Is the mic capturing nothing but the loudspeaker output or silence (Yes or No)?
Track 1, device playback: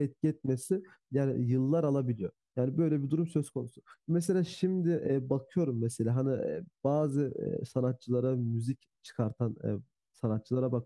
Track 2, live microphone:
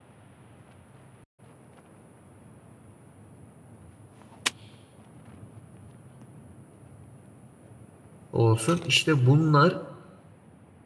No